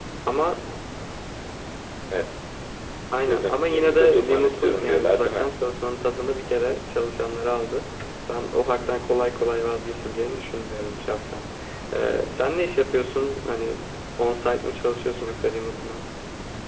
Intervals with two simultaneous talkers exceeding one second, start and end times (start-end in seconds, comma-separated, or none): 3.3-5.5